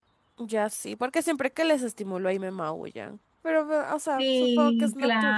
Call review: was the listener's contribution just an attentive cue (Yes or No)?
No